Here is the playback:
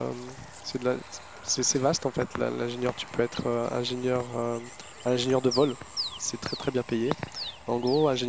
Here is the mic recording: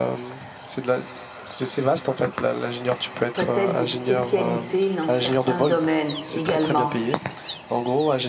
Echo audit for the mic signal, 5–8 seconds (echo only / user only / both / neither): both